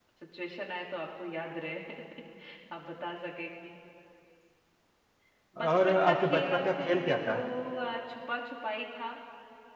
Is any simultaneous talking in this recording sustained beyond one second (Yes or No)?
Yes